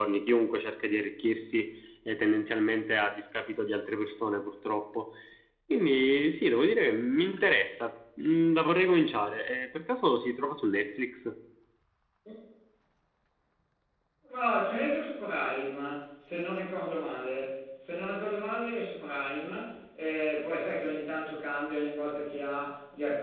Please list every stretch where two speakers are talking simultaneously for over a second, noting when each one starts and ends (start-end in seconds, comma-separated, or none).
none